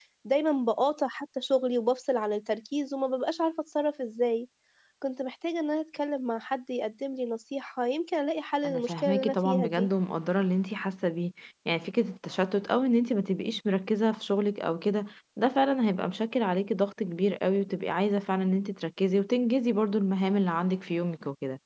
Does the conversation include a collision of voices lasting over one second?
Yes, from 8.6 s

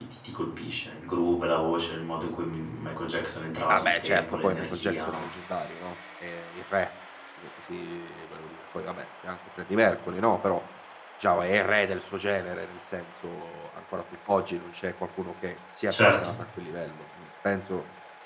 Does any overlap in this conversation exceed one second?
Yes, from 3.7 s

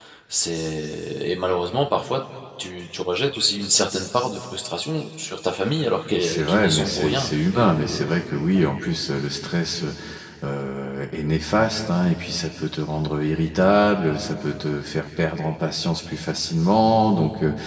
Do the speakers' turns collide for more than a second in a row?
Yes, from 6.1 s

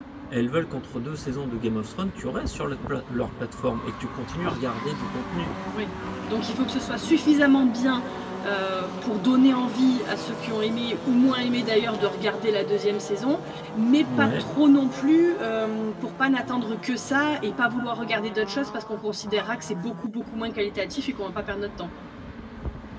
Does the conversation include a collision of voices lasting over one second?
No

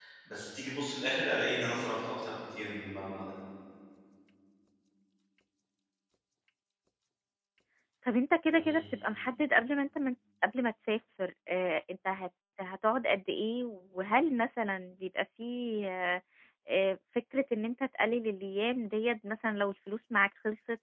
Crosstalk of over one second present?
No

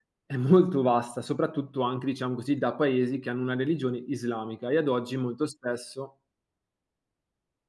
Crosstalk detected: No

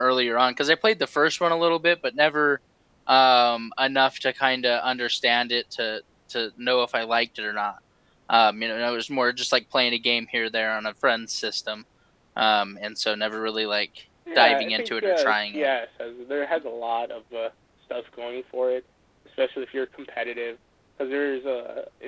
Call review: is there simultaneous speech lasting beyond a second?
Yes, from 14.3 s

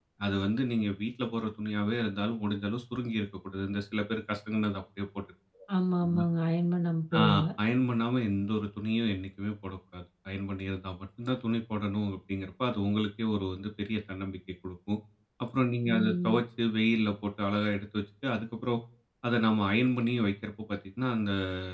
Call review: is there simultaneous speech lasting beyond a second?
No

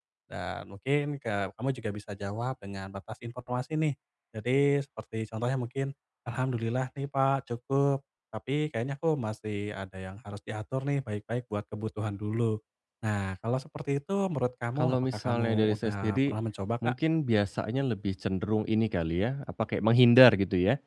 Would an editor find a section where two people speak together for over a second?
Yes, from 14.8 s

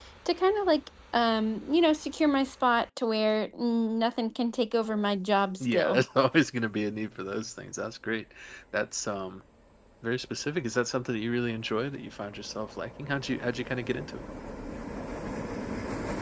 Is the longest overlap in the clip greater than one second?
No

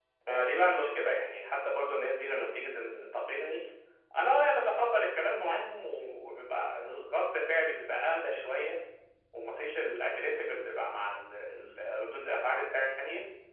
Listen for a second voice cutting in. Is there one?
No

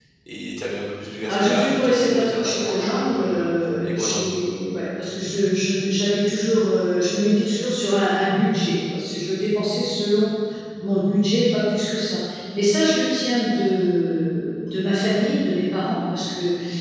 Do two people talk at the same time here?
Yes, from 1.3 s

